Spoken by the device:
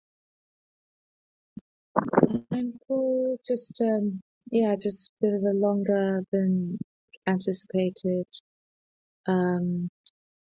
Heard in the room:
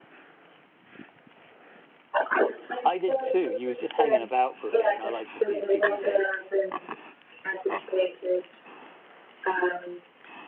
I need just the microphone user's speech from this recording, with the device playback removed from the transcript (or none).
I did too. He was just hanging about for a bit, and I like to see if people take